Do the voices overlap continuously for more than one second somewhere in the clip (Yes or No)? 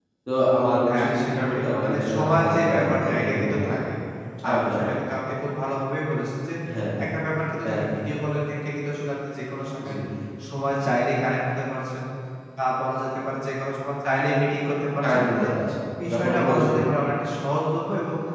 Yes